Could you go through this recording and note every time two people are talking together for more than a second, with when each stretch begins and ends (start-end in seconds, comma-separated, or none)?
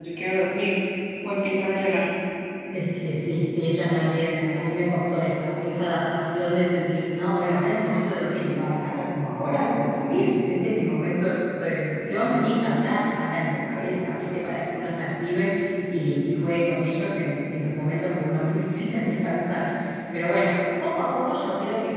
none